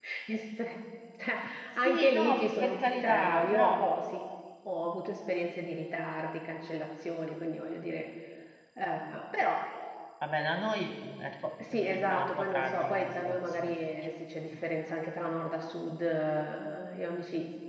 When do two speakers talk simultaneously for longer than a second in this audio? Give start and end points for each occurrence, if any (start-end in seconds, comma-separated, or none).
1.8-3.8, 11.6-13.7